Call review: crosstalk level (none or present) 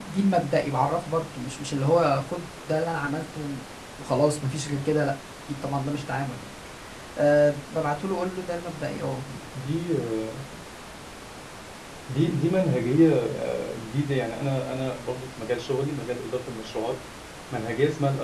none